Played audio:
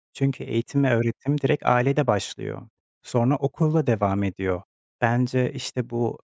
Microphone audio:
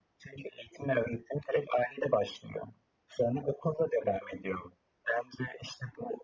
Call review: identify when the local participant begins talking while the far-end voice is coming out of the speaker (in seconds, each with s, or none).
none